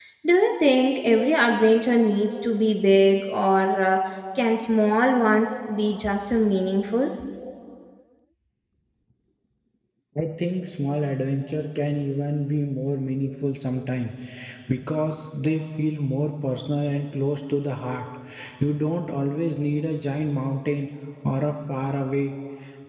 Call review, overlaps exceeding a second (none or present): none